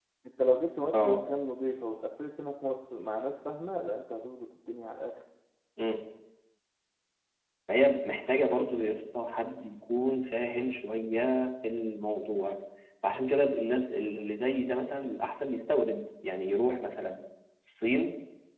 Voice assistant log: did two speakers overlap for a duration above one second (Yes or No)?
No